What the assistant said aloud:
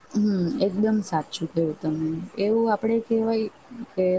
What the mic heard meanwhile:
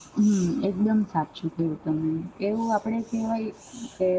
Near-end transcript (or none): none